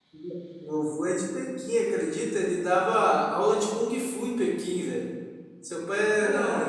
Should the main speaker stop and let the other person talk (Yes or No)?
Yes